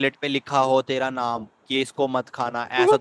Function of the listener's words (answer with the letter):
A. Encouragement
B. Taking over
A